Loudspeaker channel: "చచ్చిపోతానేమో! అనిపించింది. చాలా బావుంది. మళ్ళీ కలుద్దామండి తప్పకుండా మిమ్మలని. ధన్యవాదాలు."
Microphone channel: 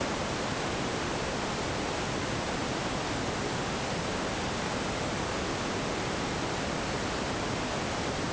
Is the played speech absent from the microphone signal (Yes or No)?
Yes